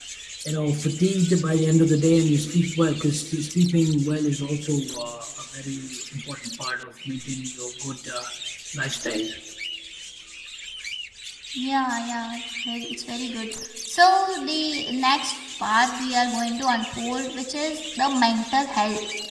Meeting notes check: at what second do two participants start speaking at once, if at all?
none

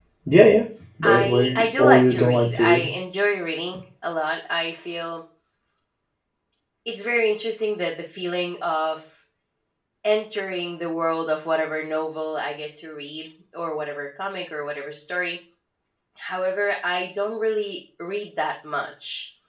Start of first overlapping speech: 1.0 s

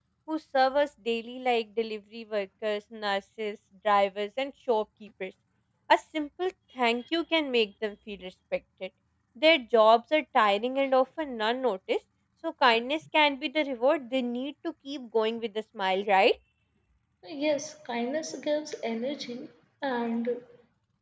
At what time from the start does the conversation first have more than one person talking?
none

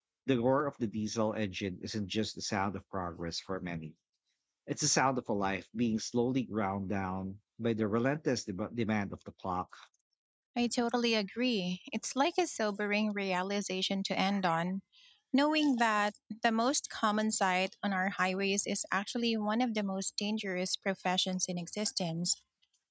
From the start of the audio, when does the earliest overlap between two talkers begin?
none

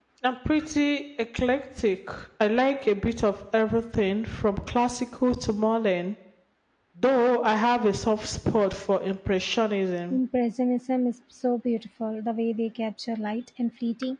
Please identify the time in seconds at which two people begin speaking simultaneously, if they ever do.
none

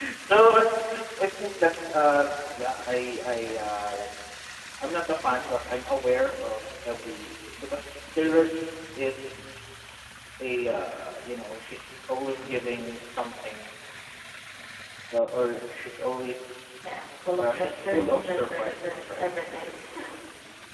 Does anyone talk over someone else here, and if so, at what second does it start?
17.4 s

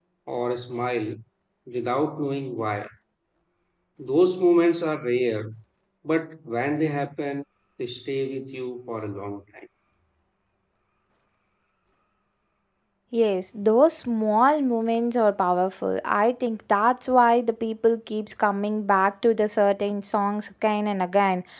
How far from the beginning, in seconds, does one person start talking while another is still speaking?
none

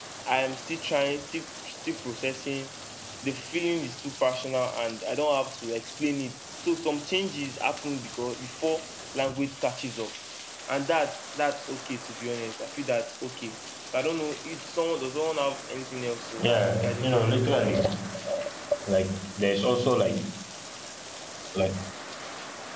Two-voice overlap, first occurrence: 16.4 s

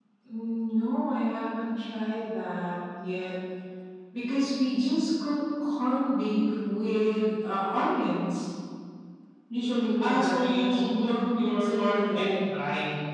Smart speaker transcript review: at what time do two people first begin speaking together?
10.0 s

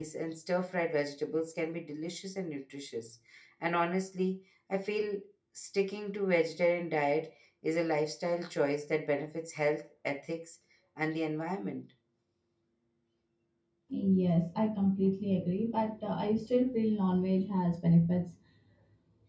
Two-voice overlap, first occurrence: none

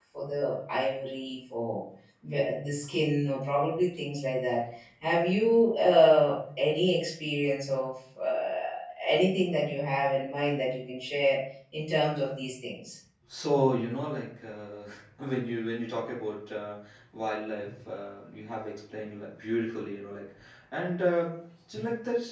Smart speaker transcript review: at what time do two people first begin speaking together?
none

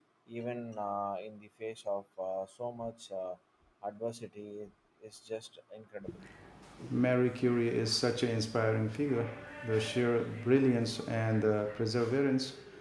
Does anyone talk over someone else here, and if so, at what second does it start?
none

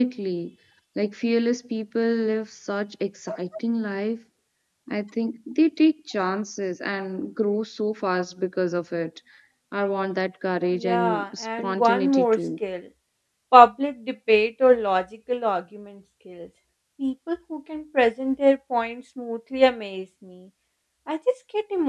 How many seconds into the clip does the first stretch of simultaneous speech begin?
10.8 s

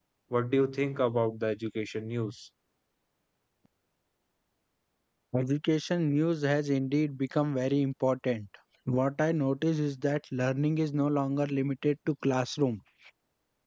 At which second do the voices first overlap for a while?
none

